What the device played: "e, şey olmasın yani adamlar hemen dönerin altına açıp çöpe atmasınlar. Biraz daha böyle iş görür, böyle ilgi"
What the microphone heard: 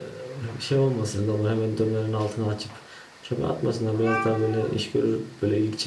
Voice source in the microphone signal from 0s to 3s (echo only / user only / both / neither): echo only